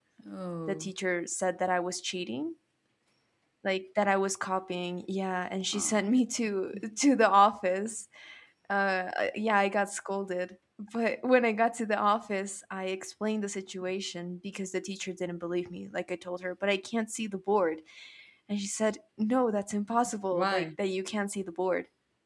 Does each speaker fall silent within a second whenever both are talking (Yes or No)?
Yes